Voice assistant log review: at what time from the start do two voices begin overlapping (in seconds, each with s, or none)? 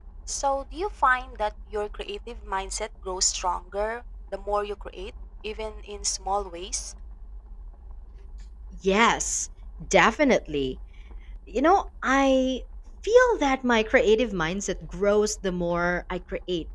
none